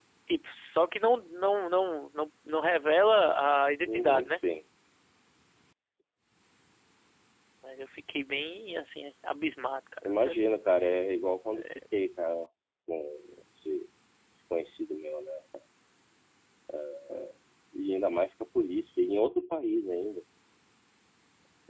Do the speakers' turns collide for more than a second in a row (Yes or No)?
No